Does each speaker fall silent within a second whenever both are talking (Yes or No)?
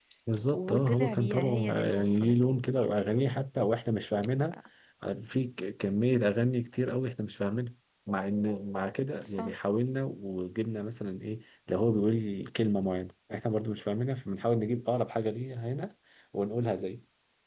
No